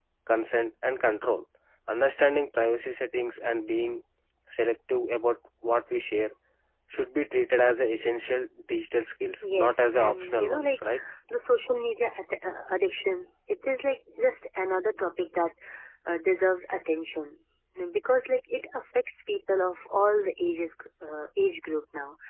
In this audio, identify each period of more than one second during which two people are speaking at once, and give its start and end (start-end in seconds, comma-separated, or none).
9.4-10.8